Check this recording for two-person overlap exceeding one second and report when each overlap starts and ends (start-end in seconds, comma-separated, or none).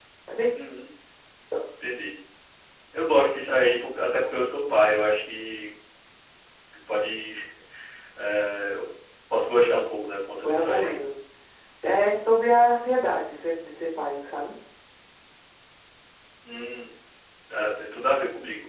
none